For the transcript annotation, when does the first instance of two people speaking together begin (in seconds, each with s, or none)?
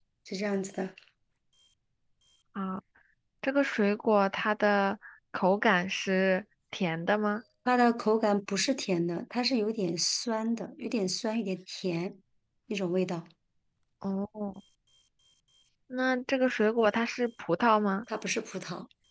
none